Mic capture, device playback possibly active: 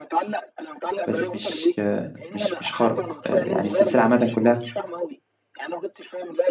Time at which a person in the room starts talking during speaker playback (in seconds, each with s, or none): 1.1 s